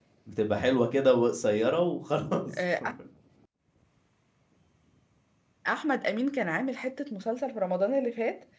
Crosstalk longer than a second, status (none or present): none